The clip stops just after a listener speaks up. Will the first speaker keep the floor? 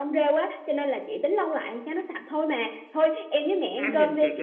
No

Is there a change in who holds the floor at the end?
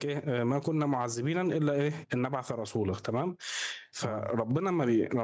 No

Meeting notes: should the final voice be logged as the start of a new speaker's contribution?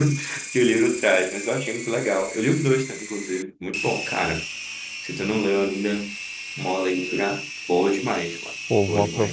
Yes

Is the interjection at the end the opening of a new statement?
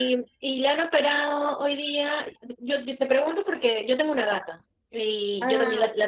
No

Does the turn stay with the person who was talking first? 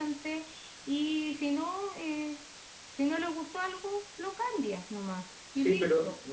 No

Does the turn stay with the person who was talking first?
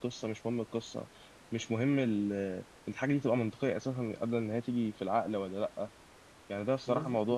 Yes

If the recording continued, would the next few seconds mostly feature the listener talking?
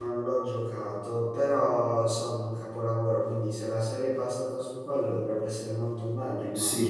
Yes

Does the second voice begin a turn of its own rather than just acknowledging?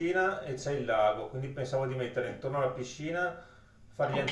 No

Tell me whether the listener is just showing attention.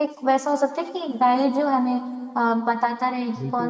No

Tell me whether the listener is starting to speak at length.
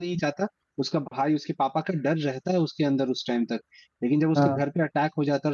No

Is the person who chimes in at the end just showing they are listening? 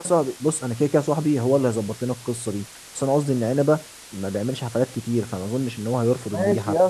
No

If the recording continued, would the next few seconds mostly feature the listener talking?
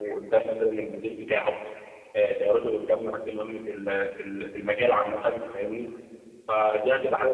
No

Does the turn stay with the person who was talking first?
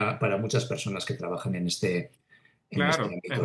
No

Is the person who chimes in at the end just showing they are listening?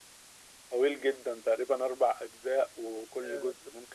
Yes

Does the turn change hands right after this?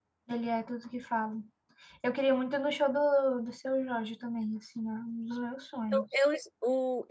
Yes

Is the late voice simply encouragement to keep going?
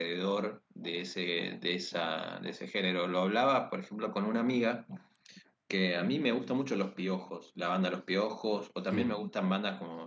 Yes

